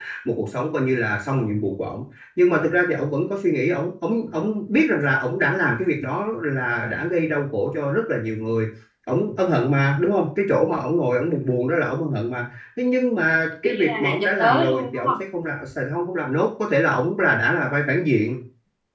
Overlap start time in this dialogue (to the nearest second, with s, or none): 14 s